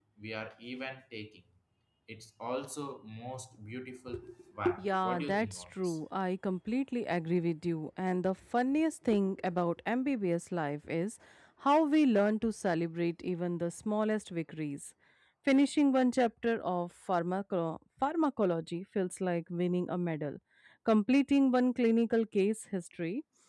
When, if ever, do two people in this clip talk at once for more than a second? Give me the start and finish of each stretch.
4.8-6.0

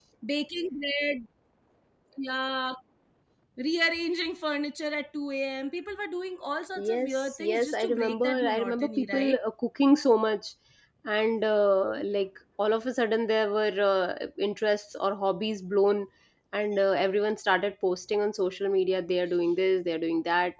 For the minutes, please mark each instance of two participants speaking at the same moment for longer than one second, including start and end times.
6.8-9.4

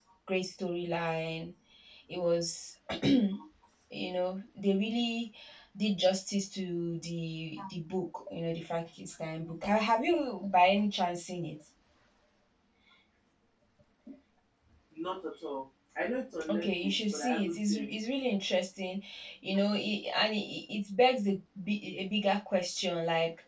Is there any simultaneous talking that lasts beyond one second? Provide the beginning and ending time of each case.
16.5-17.9

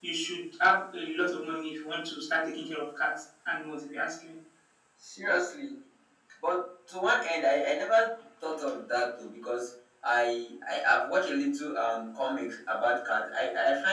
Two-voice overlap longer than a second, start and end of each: none

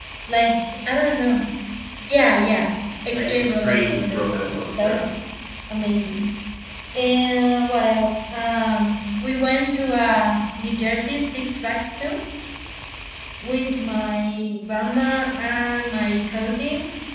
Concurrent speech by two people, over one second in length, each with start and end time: 3.1-5.0

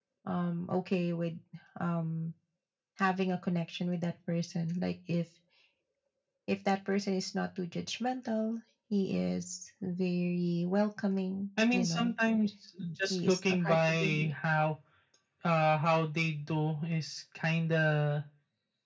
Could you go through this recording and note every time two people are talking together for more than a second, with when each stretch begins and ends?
13.1-14.3

